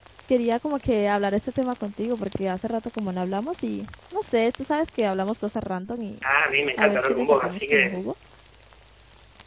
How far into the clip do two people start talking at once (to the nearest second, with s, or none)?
7 s